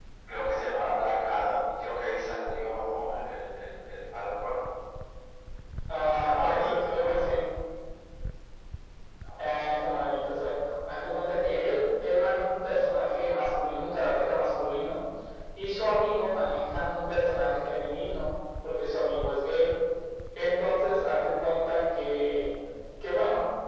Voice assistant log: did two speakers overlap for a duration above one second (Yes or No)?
Yes